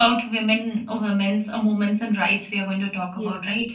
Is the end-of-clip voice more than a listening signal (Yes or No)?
Yes